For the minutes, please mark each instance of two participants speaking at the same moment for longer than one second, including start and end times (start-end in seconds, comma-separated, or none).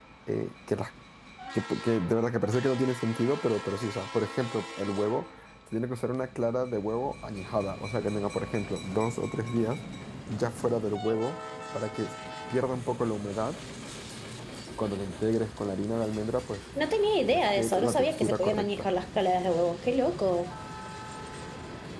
17.2-18.9